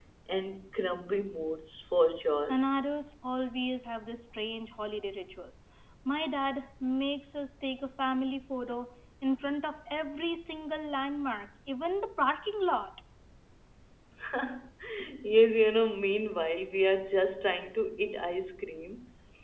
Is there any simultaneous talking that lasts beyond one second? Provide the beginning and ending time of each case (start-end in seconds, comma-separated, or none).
none